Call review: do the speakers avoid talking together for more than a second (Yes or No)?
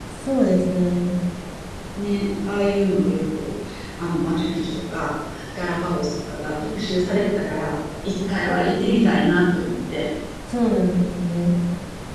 Yes